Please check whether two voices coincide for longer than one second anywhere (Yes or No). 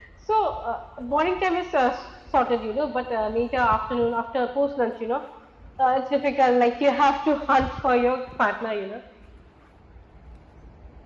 No